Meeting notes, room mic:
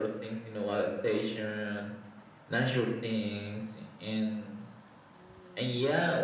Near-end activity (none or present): none